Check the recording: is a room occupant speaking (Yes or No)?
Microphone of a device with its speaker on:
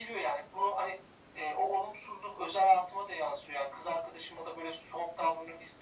No